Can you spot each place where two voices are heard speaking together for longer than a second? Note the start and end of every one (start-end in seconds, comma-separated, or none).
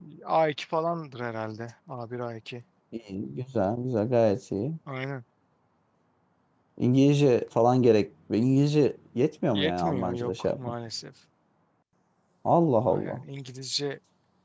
9.5-10.7